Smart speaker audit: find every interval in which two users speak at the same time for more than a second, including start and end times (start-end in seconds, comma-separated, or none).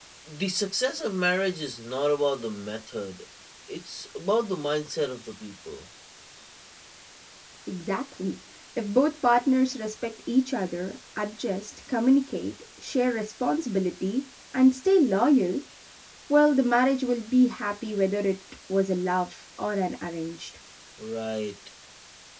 none